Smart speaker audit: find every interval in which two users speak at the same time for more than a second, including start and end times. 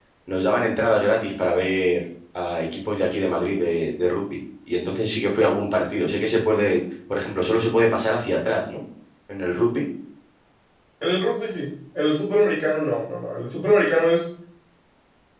none

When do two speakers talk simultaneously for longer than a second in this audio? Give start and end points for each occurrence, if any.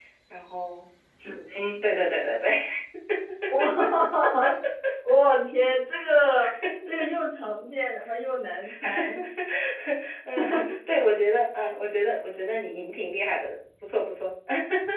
none

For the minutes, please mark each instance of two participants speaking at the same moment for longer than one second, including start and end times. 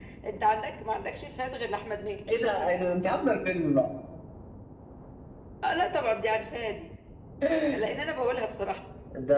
none

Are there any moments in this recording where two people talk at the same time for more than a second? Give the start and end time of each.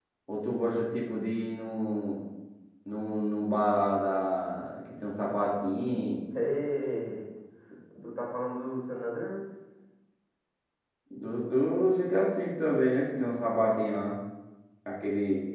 none

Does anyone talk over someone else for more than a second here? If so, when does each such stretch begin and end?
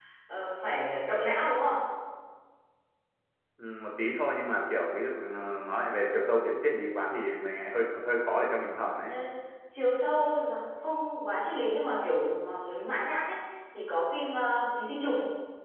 none

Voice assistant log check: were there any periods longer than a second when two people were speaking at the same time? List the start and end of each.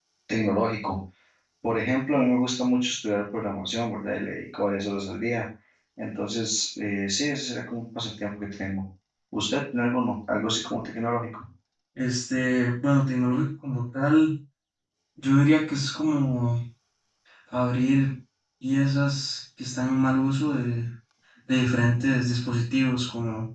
none

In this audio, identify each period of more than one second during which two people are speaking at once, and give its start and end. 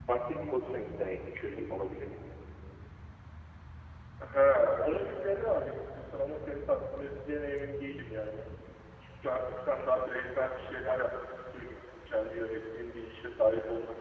none

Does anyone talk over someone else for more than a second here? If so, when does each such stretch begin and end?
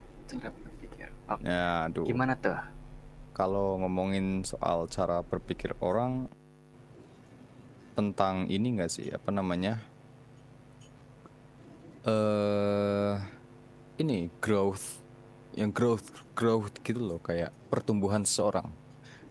none

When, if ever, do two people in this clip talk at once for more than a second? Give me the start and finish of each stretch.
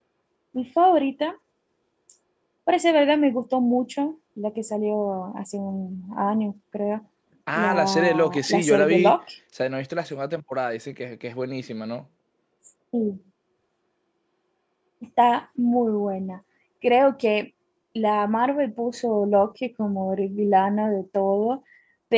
7.5-9.2

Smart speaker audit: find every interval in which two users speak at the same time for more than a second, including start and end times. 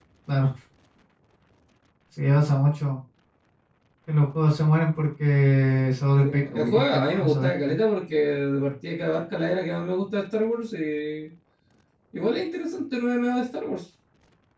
6.2-7.8

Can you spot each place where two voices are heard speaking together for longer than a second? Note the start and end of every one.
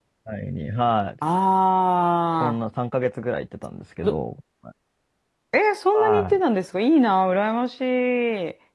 none

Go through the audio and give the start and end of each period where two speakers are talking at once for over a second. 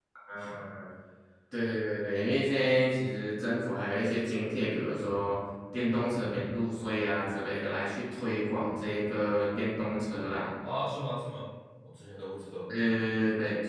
none

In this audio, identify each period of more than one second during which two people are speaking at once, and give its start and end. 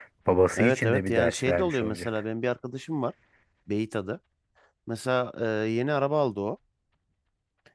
0.6-2.1

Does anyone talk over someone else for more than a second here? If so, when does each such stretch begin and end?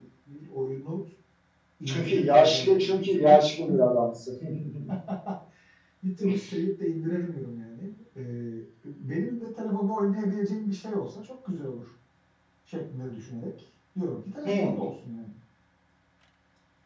1.9-3.4

